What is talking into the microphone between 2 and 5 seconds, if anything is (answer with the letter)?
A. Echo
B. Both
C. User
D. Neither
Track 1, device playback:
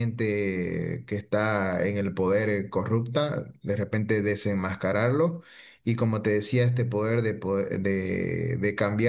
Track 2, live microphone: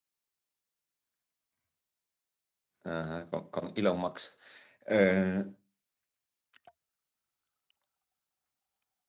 C